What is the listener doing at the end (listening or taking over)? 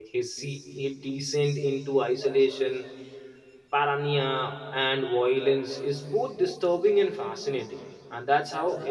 taking over